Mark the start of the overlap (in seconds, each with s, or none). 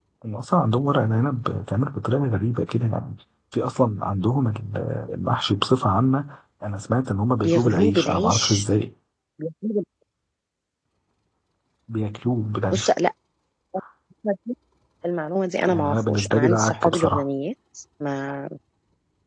7.4 s